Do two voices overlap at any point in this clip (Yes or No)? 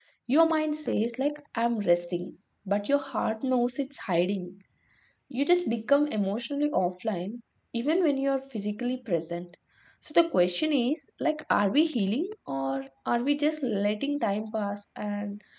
No